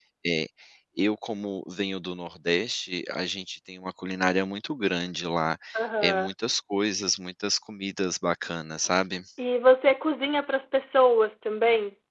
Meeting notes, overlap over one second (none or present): none